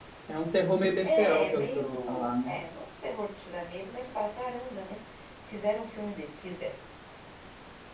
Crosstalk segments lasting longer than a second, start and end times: 1.0-2.5

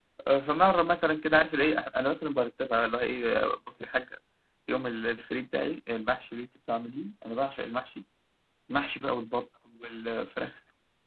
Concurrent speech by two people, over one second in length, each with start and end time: none

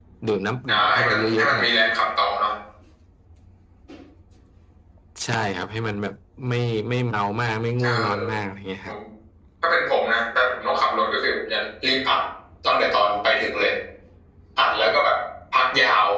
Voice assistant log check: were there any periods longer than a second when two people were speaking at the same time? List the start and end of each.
0.7-2.0

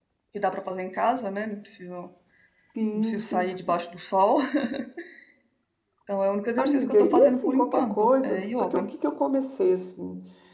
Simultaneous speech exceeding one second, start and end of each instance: 6.6-8.8

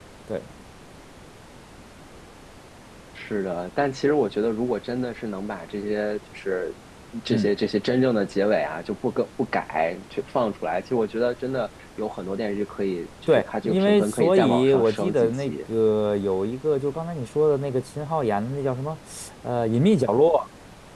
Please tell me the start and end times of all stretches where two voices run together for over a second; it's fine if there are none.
13.3-15.5

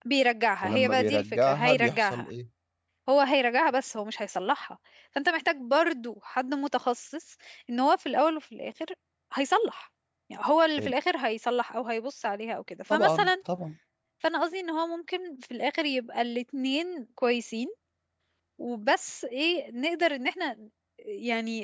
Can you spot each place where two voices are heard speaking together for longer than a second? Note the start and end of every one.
0.6-2.3

